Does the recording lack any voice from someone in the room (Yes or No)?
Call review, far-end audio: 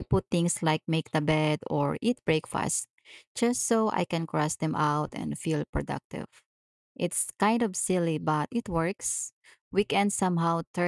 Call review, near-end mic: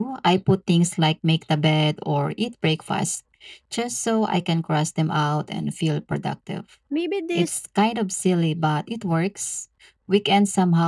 No